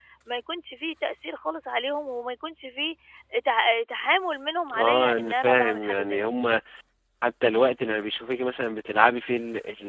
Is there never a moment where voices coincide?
No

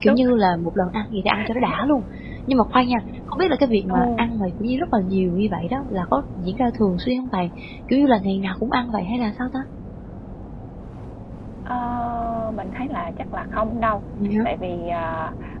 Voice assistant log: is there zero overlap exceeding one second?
Yes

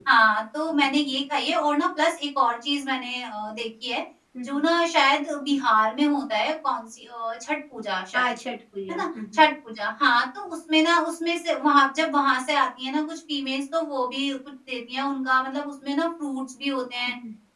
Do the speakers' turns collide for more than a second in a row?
No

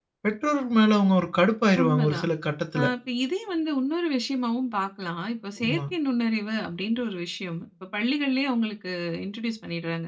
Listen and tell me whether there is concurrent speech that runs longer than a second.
No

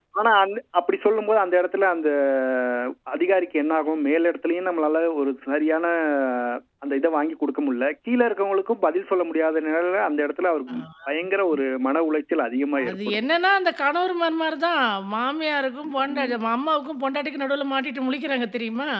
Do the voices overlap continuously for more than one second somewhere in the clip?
No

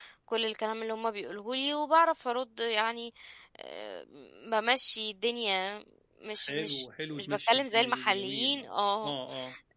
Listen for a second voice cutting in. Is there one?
Yes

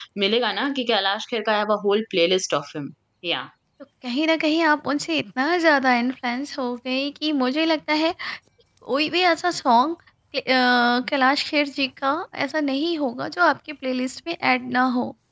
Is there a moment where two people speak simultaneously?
No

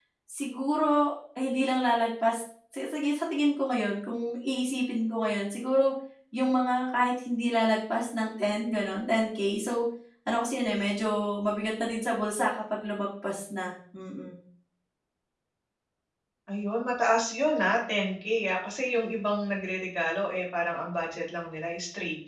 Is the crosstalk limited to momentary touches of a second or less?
Yes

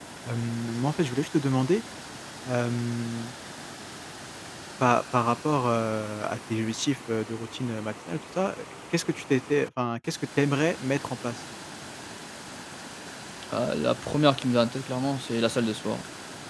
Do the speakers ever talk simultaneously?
No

